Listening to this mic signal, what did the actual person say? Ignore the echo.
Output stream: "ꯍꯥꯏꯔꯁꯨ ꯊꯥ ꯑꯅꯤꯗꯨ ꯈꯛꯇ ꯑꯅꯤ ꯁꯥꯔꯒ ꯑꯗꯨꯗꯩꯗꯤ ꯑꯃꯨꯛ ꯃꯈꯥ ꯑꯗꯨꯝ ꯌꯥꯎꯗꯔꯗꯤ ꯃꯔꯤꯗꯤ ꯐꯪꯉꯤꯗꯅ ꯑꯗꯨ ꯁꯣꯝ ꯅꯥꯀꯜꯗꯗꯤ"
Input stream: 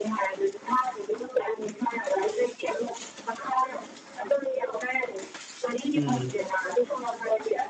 ꯑ ꯎꯝ

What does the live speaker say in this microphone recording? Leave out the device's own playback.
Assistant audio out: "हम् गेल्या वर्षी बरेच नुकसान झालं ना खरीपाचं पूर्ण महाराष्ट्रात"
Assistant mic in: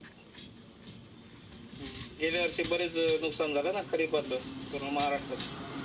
none

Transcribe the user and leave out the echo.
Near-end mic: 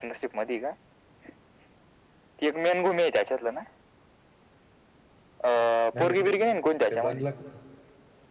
नाही नाही ते ते बनला का

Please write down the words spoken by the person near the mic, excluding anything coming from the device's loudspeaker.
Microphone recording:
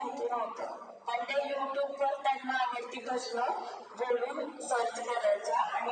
none

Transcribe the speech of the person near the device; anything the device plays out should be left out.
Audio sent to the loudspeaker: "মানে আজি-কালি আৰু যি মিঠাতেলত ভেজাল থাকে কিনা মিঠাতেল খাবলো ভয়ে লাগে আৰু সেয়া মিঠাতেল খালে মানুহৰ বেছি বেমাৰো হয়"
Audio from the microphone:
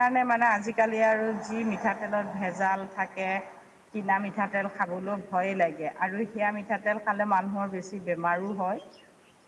none

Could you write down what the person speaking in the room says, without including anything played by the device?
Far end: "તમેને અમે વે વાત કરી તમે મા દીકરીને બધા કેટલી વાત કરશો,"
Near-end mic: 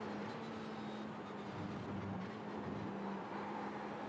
none

